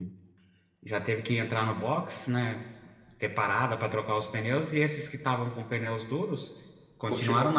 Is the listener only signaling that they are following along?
Yes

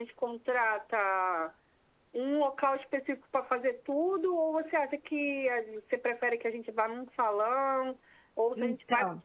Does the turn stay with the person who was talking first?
Yes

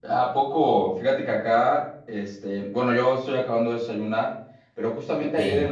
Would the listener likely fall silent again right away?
Yes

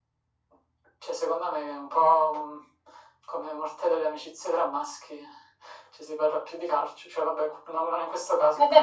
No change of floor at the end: No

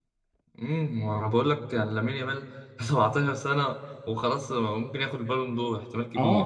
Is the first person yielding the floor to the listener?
Yes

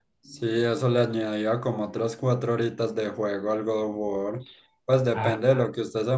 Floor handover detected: No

